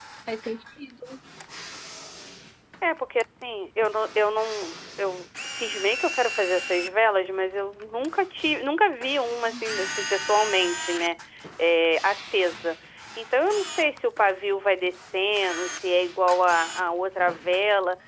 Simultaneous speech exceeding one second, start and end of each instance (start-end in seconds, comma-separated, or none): none